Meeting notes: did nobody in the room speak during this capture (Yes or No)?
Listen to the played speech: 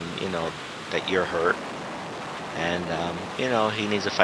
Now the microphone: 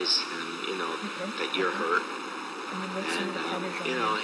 No